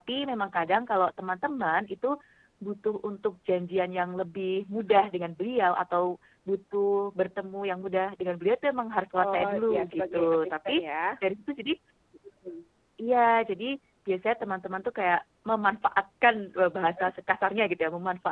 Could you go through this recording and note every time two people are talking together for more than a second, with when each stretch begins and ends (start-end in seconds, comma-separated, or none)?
9.2-10.8